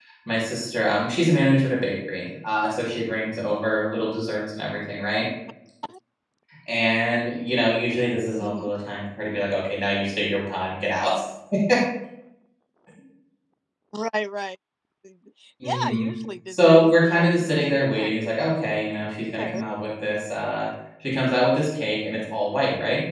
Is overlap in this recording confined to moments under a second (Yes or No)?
No